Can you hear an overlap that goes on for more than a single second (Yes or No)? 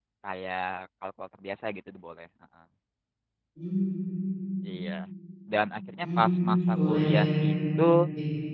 Yes